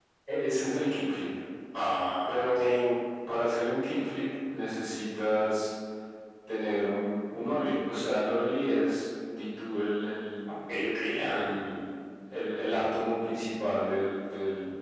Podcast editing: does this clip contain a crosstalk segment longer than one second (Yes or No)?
No